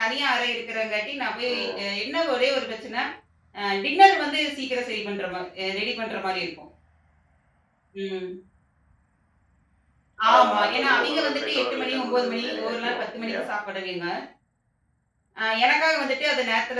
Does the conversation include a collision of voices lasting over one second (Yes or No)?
Yes